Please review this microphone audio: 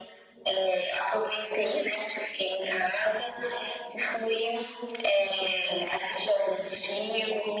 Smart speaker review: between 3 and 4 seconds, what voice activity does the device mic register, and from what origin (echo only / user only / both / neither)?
echo only